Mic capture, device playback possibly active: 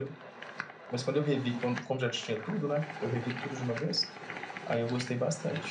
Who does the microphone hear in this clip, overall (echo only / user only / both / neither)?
echo only